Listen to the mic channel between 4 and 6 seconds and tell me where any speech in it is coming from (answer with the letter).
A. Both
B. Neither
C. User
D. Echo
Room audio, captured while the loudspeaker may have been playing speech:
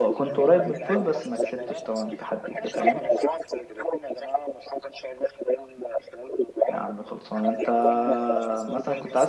D